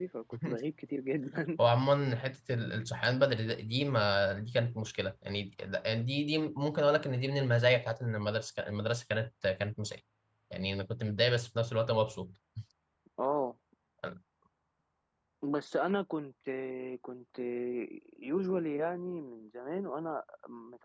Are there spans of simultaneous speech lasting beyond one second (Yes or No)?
No